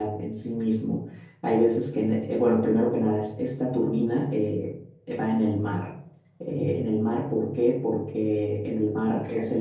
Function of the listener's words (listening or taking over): listening